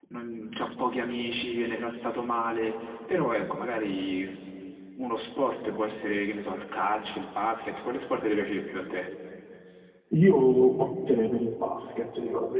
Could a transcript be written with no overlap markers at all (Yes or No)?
Yes